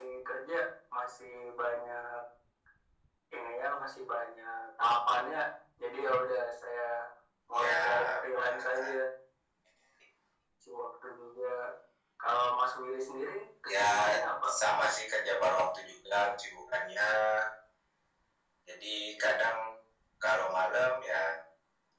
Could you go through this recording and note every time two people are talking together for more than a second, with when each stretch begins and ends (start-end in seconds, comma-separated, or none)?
7.6-8.9